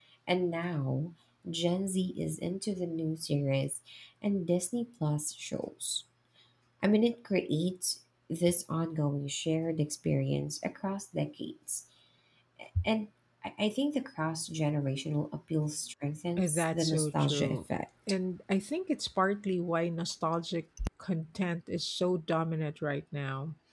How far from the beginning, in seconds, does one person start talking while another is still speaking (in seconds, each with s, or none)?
16.4 s